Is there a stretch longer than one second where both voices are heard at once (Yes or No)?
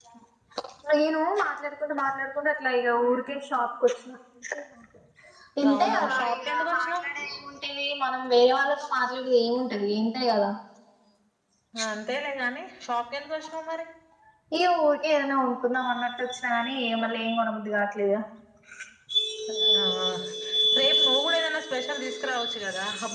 Yes